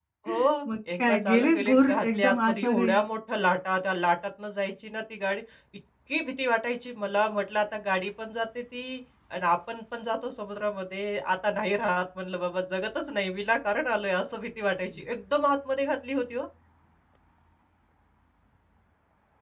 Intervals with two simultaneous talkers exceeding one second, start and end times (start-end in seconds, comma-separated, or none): 1.0-2.9